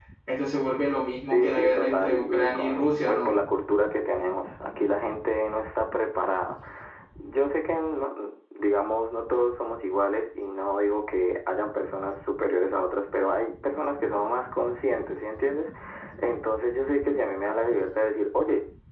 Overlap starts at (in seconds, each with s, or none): 1.3 s